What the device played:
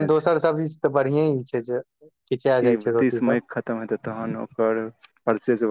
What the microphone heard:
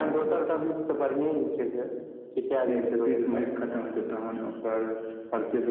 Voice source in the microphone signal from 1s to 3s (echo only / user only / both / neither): echo only